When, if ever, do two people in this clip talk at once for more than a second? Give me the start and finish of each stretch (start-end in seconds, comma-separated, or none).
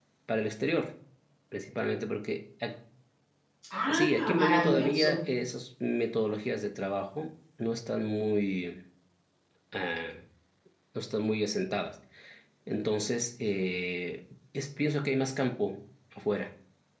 3.9-5.2